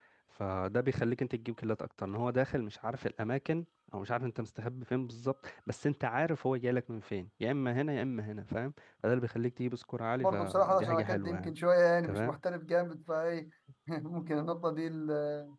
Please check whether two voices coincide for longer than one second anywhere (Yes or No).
Yes